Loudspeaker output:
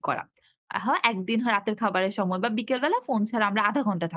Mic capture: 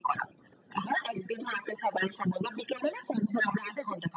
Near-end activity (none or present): none